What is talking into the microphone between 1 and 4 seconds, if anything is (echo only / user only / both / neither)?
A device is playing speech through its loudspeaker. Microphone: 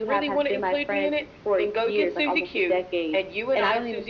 echo only